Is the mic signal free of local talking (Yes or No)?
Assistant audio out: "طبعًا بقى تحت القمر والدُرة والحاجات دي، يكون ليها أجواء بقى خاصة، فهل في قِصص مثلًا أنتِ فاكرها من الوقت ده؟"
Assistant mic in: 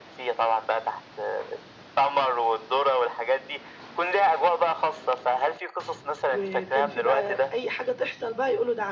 No